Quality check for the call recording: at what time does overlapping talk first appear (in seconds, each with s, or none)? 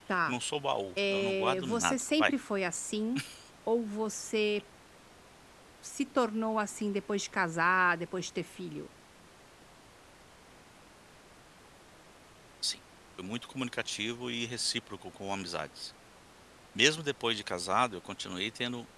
1.0 s